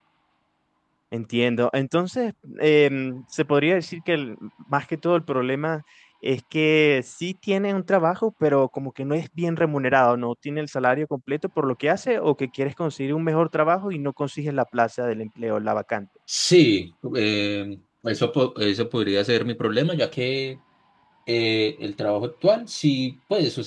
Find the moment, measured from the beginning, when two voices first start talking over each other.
none

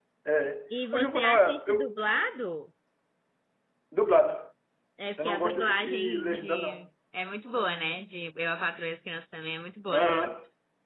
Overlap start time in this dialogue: 0.7 s

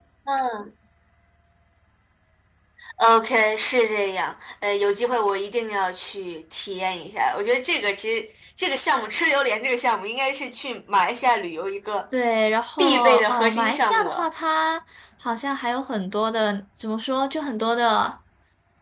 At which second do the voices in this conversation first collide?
12.8 s

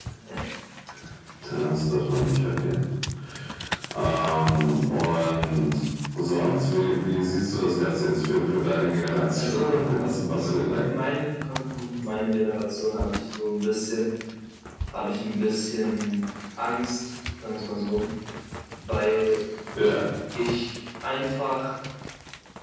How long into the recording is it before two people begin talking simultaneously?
9.3 s

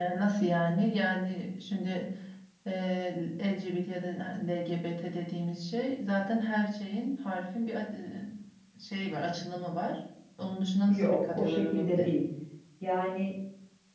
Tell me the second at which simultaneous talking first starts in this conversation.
10.9 s

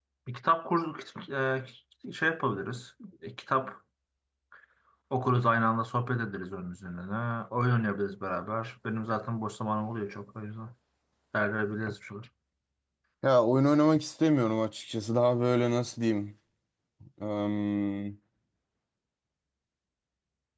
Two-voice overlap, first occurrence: none

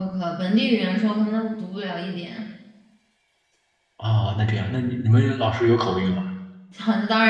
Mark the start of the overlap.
none

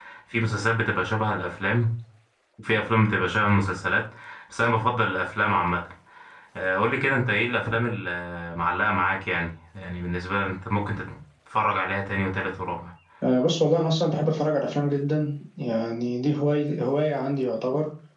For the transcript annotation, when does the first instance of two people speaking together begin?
none

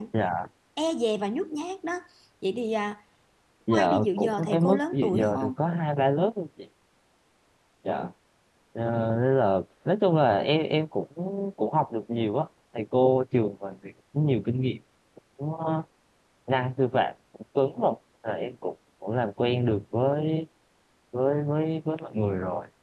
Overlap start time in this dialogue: 3.7 s

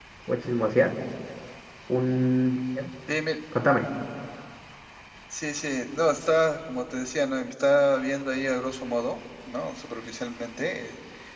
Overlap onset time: none

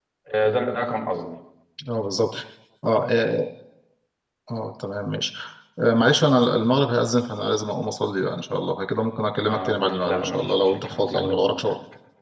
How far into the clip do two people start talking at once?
9.5 s

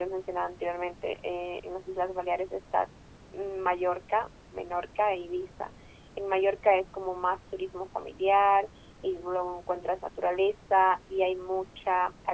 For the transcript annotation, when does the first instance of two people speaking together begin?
none

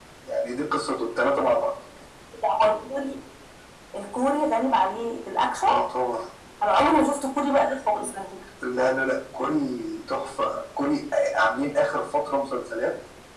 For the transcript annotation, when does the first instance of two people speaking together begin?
none

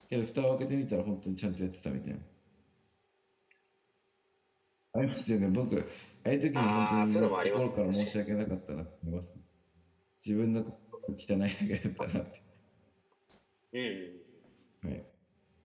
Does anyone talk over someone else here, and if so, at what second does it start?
6.6 s

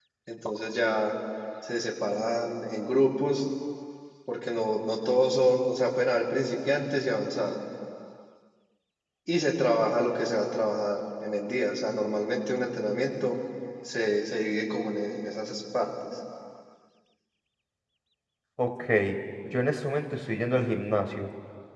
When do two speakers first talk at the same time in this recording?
none

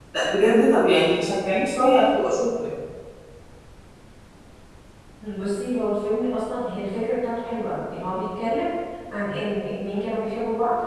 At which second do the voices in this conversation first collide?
none

